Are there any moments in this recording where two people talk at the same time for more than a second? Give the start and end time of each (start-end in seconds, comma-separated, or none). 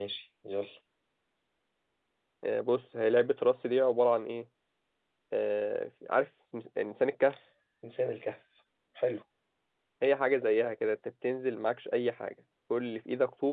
none